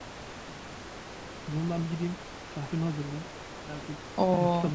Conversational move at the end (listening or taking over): taking over